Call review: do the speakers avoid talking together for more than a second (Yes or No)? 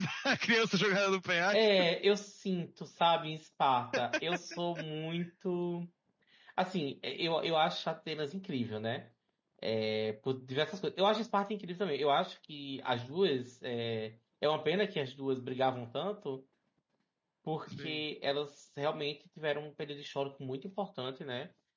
Yes